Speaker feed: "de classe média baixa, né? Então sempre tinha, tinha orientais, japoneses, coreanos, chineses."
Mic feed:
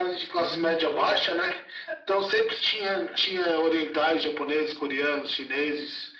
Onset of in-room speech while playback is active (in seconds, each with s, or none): 0.4 s